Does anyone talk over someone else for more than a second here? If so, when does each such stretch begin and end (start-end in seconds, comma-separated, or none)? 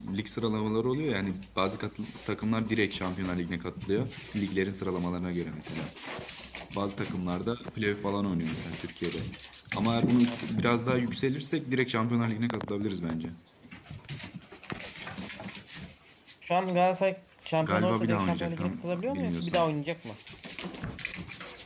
17.6-19.6